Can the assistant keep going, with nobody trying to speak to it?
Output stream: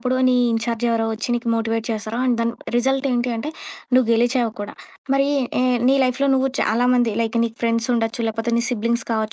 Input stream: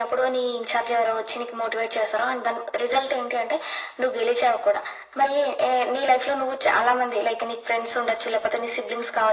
Yes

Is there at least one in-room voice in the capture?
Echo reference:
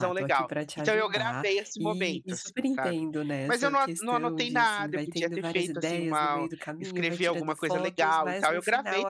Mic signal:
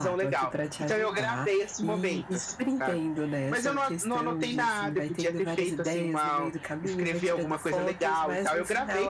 No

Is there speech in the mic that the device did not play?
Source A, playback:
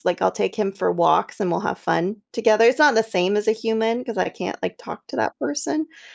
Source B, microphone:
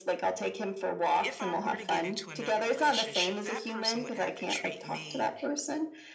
Yes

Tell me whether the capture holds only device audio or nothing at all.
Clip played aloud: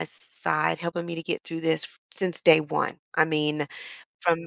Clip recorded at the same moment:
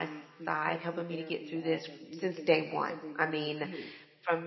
No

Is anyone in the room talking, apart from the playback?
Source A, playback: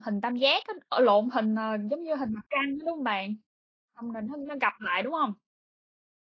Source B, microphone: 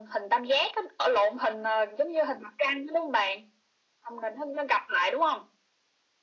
No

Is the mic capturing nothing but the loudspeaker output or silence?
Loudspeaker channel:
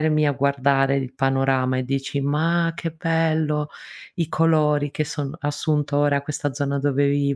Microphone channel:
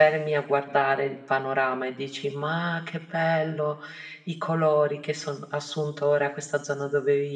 Yes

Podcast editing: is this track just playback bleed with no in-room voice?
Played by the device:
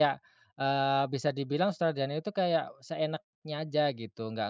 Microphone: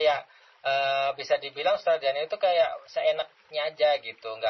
Yes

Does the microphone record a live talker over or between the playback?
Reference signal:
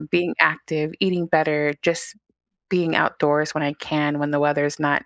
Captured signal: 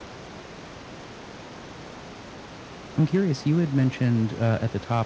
Yes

